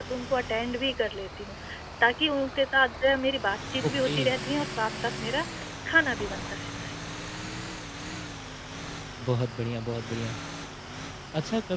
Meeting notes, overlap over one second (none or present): none